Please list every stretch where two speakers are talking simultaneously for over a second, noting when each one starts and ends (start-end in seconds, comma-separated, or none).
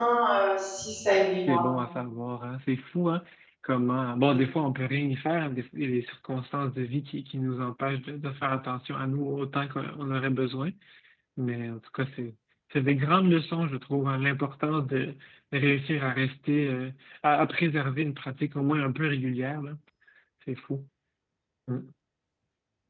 none